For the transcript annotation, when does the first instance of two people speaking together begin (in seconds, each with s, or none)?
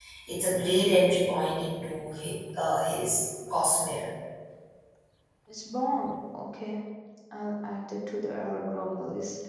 none